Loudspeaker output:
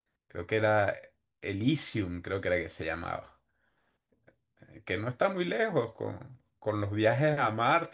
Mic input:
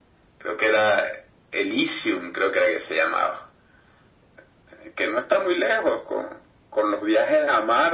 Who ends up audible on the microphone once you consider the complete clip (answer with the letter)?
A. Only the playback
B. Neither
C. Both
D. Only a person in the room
A